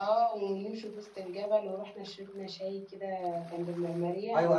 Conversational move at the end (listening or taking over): taking over